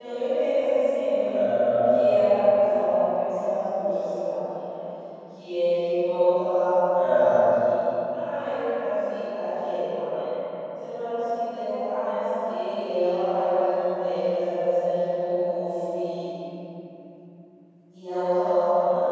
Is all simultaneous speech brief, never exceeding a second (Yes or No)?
Yes